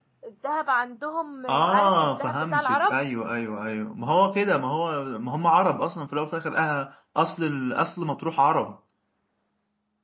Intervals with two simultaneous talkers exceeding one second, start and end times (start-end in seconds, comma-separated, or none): 1.5-3.0